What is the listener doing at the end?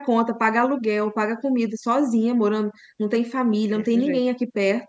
listening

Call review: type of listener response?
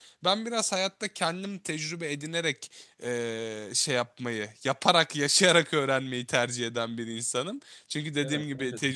listening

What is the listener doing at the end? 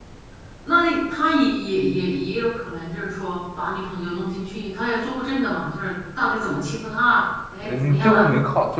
taking over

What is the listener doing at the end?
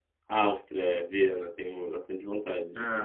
taking over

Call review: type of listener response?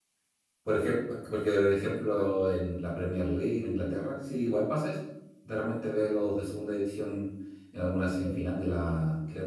listening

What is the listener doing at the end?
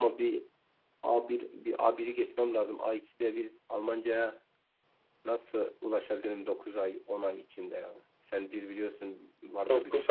taking over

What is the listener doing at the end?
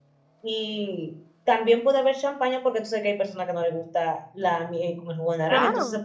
listening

